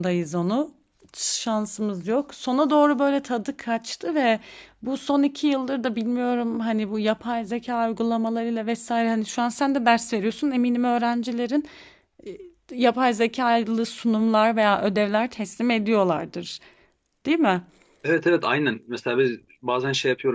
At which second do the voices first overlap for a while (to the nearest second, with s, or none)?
none